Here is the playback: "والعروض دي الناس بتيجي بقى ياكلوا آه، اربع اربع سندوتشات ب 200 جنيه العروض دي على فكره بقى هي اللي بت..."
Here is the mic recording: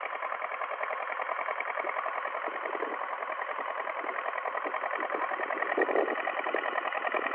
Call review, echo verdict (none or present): none